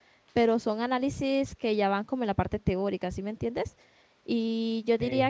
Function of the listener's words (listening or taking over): listening